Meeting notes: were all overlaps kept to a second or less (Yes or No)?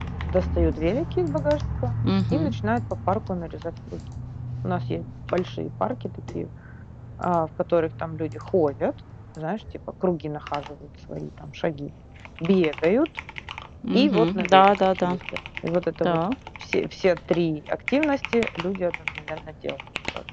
No